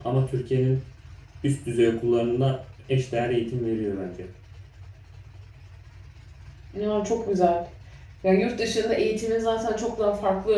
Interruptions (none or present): none